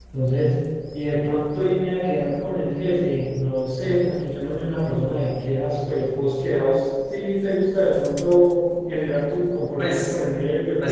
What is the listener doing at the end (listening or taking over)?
taking over